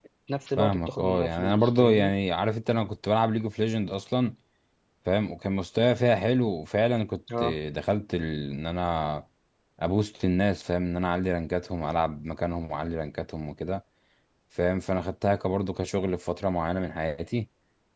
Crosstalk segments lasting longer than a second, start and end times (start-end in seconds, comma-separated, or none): 0.6-2.1